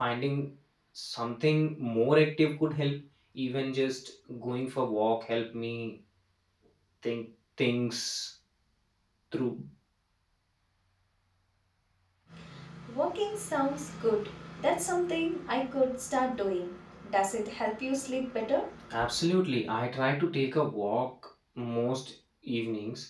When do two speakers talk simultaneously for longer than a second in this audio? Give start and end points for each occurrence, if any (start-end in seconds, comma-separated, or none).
none